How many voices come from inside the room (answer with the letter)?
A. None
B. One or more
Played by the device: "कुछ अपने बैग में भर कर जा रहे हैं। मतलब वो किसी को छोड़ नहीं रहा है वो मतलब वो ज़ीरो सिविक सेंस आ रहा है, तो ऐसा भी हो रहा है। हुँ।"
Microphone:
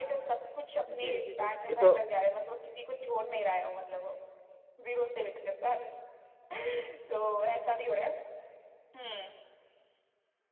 B